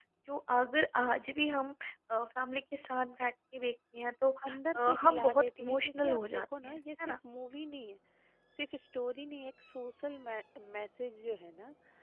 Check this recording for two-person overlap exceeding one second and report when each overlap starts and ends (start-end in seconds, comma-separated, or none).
4.8-7.1